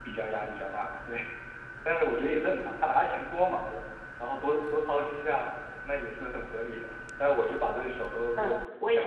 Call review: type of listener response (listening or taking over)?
taking over